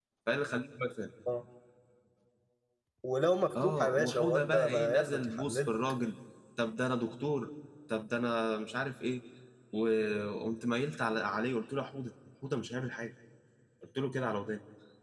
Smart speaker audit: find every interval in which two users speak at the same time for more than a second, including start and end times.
3.6-5.8

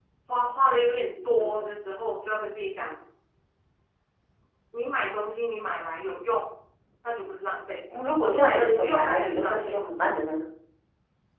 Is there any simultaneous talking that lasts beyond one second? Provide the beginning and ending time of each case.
8.3-9.8

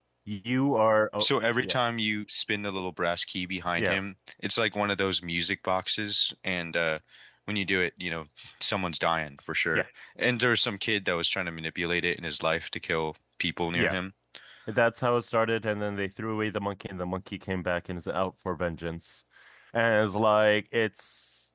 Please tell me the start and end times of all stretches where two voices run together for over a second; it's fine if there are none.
none

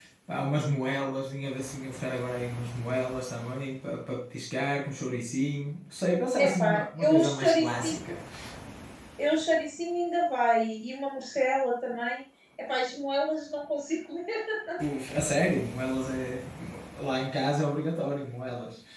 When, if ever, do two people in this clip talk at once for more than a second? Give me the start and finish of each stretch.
6.3-8.2

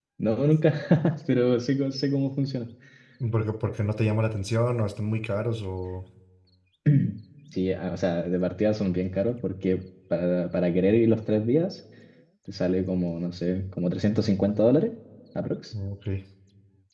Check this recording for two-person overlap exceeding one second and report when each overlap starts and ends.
none

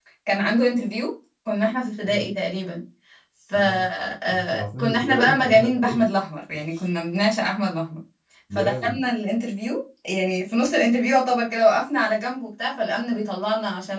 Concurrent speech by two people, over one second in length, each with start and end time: 4.3-6.0

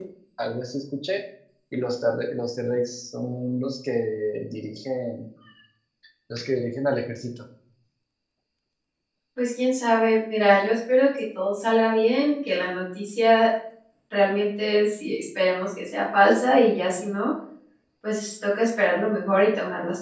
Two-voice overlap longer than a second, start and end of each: none

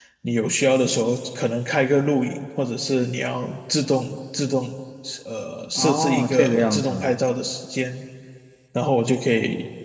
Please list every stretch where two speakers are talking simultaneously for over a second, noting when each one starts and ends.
5.8-7.2

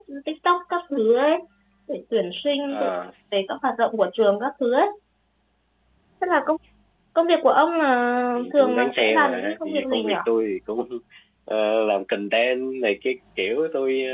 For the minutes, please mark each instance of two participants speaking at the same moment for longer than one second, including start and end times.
8.4-10.1

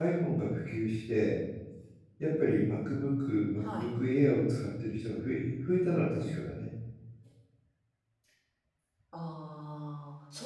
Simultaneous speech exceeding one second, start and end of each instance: none

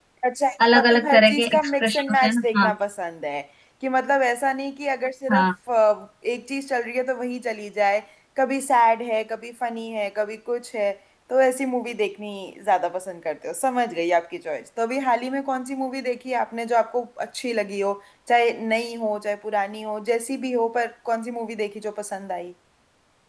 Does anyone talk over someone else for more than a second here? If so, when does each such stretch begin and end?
0.7-2.7

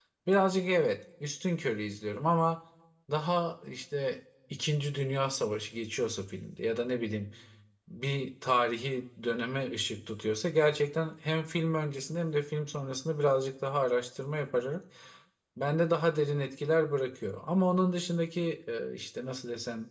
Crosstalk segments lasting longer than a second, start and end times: none

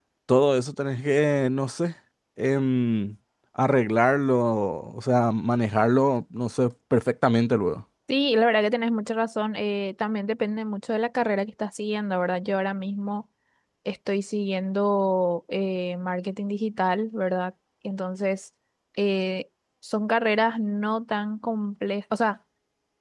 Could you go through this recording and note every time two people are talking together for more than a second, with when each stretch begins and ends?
none

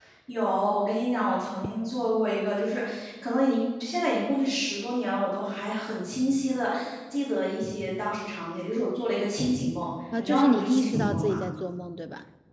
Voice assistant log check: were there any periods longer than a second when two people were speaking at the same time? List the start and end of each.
10.2-11.4

